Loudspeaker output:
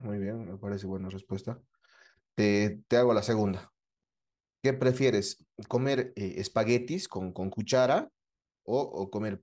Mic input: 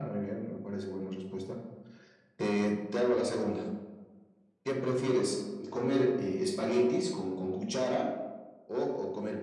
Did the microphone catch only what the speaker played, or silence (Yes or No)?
Yes